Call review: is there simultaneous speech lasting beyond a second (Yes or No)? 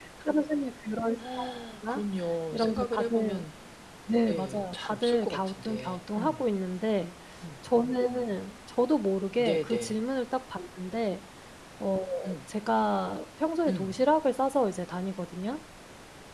Yes